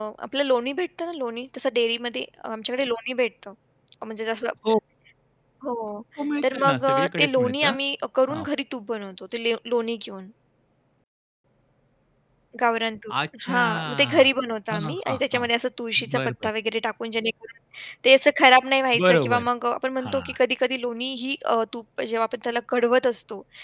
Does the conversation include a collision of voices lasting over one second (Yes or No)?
Yes